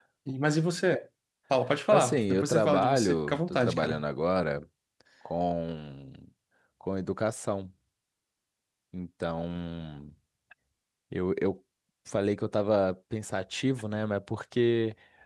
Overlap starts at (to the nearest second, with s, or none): 2 s